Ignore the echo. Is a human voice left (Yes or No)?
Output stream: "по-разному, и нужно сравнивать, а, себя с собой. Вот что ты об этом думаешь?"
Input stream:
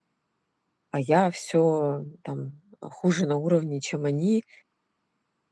Yes